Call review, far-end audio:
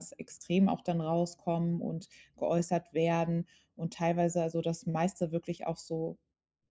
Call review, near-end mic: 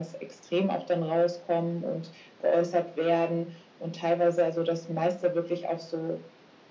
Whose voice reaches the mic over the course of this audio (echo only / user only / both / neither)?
echo only